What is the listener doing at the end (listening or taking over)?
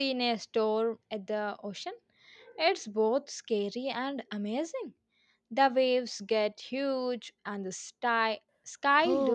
taking over